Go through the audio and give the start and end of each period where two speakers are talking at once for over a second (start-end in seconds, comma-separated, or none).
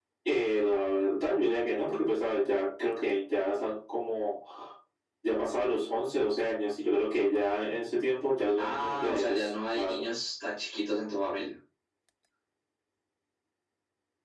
8.6-10.0